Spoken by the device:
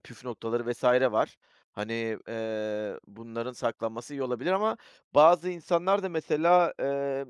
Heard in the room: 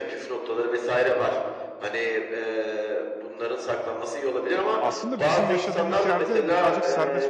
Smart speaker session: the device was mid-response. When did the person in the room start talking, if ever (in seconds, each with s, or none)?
4.8 s